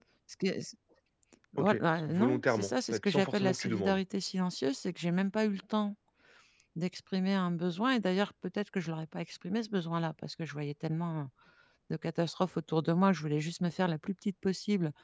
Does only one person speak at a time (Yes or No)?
No